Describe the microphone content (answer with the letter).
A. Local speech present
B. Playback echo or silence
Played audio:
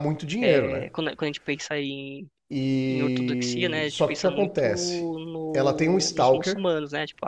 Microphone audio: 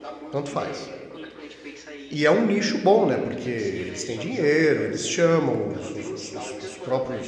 A